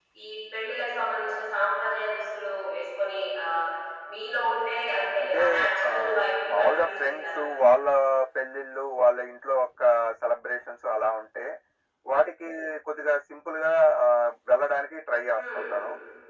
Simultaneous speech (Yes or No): Yes